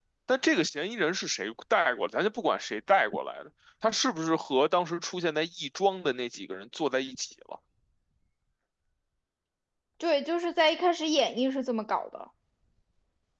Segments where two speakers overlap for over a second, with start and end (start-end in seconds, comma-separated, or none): none